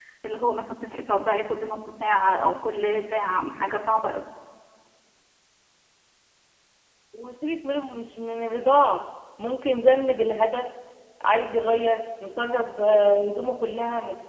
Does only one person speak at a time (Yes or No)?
Yes